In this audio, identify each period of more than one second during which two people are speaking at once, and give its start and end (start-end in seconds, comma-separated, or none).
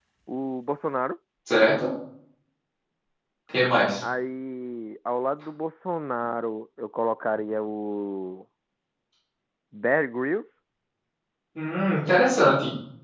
none